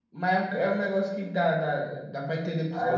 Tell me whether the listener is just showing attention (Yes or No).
No